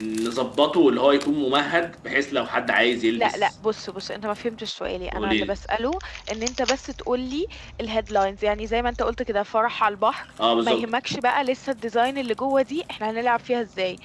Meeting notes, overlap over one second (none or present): none